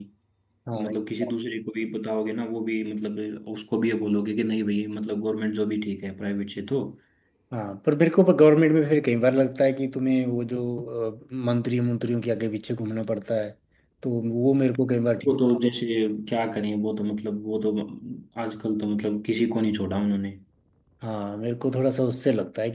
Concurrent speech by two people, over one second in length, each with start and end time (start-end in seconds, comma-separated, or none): none